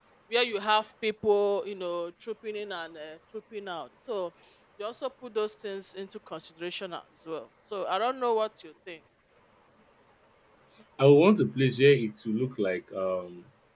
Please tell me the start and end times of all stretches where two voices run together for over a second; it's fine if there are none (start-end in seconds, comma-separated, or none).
none